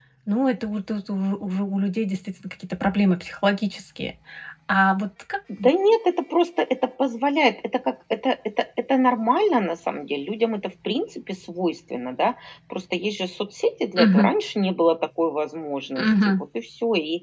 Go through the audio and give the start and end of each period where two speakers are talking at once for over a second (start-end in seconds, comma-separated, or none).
none